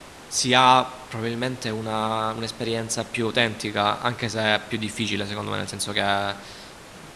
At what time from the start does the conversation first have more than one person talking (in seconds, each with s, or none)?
none